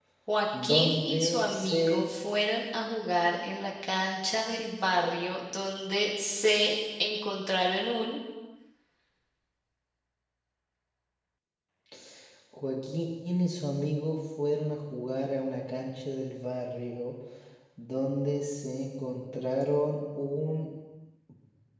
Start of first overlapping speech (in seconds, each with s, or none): 0.6 s